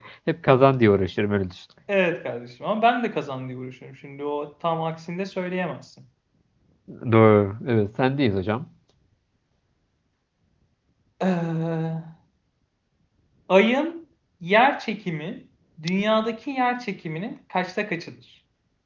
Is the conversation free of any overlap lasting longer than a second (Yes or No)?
Yes